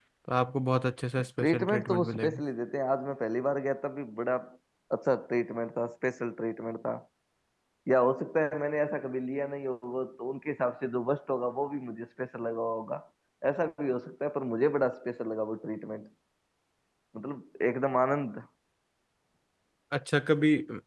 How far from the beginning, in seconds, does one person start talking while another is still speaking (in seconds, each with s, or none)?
1.2 s